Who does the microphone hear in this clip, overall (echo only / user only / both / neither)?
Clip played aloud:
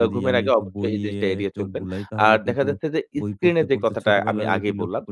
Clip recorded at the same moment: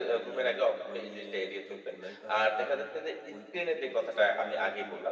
echo only